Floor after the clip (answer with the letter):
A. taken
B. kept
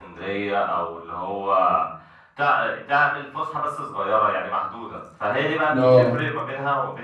B